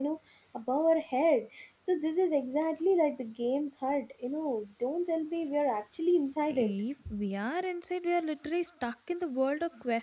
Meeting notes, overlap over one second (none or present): none